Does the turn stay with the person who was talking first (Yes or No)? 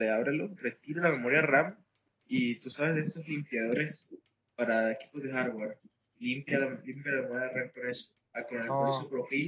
Yes